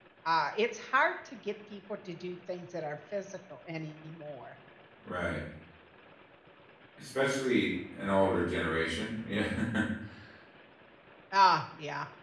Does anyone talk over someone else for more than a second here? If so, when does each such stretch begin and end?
none

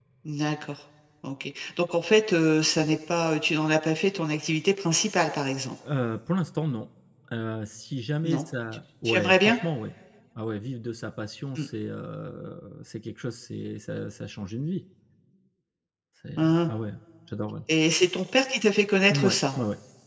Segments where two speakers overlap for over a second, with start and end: none

